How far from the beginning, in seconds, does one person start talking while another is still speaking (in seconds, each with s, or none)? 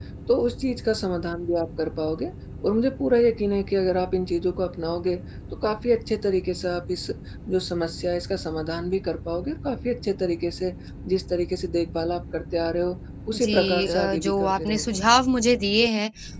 13.3 s